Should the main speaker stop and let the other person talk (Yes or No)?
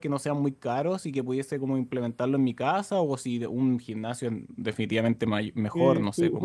Yes